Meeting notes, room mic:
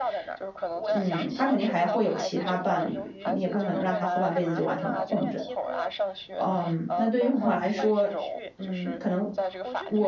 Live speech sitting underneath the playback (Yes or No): No